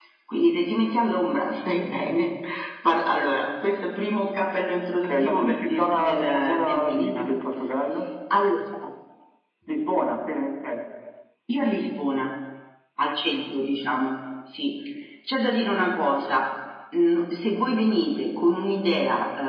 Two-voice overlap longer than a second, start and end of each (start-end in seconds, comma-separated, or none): 4.9-7.2